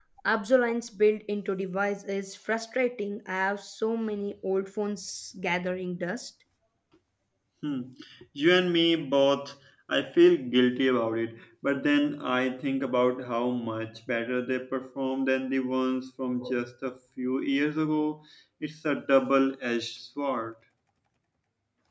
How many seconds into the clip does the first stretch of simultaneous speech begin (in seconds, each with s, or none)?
none